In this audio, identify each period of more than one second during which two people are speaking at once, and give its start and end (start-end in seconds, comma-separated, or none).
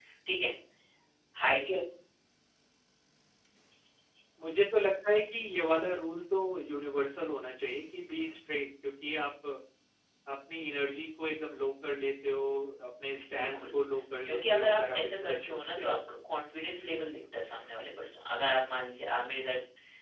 14.2-16.0